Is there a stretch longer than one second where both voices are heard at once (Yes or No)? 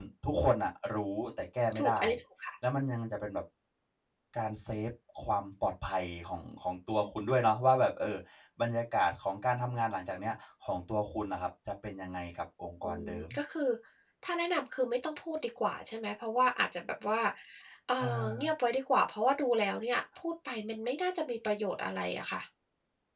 No